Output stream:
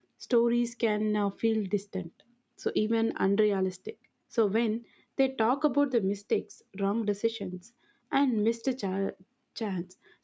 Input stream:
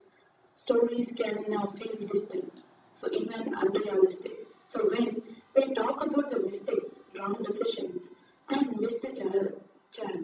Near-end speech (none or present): none